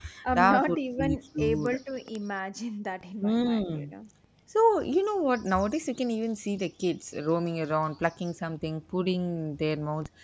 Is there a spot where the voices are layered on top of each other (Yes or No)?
Yes